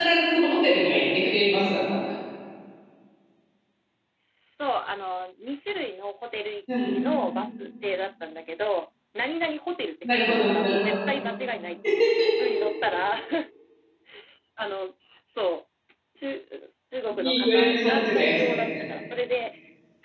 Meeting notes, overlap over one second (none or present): present